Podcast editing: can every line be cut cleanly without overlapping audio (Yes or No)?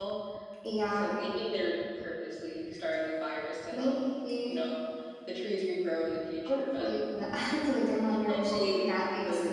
No